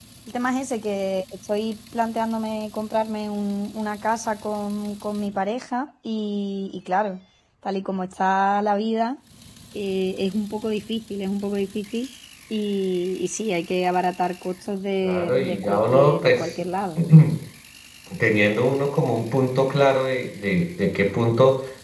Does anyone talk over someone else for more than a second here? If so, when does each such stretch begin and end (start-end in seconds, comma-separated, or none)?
15.0-16.5